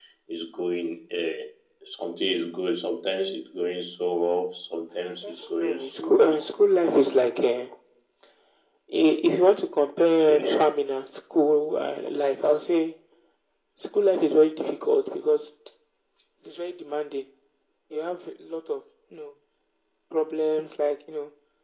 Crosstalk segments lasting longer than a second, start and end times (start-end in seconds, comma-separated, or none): 5.0-6.4